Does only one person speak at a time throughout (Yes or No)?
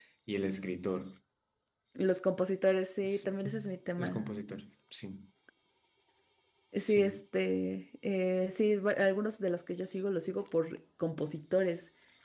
No